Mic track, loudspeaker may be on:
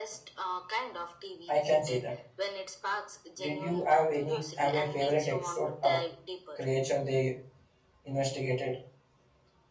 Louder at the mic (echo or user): user